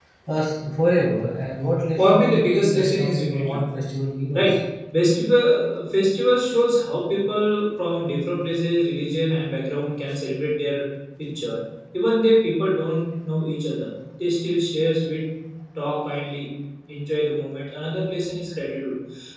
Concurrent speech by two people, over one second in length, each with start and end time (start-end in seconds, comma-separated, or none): 2.0-3.6